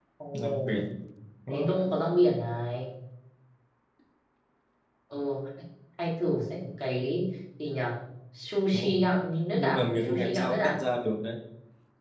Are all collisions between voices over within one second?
No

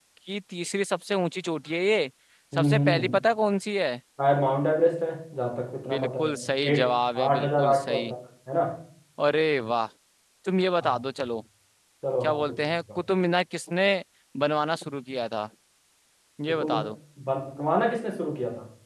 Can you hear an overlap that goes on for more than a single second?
Yes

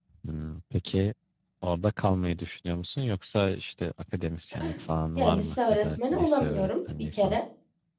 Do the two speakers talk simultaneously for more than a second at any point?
Yes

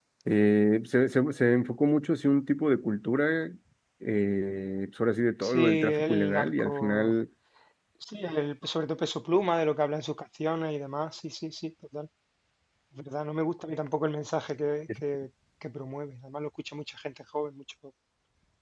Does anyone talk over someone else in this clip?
Yes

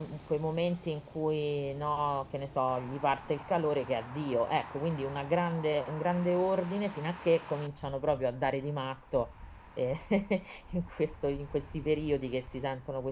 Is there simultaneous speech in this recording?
No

